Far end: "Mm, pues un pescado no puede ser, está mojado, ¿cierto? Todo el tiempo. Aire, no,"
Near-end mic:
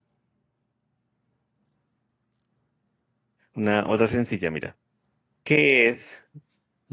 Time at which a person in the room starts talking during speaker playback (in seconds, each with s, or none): 3.5 s